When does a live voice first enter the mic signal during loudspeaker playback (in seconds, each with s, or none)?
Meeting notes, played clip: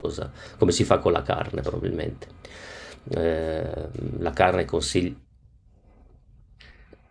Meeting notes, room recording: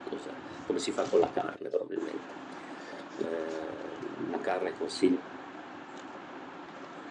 none